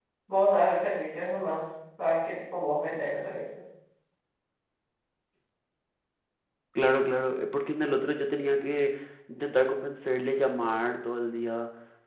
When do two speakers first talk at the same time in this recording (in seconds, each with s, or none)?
none